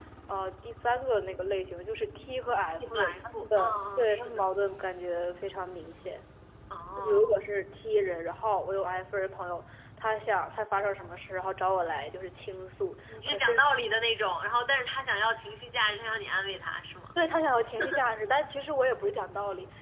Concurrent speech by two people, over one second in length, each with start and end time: 2.8-4.5

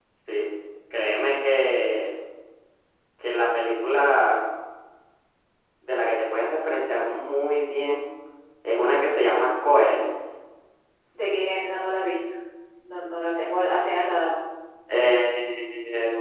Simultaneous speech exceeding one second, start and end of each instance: none

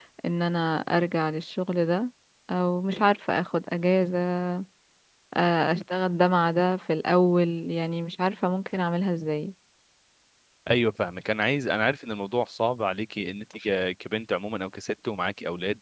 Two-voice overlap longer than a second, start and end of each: none

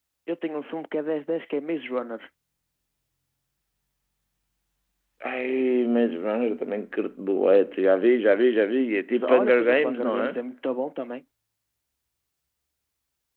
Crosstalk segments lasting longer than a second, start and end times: 9.1-10.3

